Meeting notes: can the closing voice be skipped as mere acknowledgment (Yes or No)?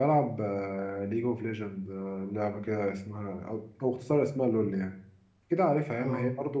Yes